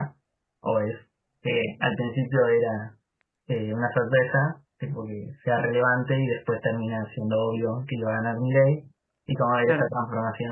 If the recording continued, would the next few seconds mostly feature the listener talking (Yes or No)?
No